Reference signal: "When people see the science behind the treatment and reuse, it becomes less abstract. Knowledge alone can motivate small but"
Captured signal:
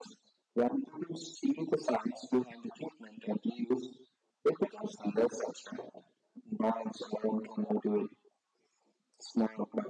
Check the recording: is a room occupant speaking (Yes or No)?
No